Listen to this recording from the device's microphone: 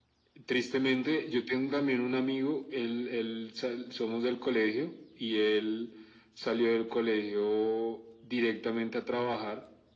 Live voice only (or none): none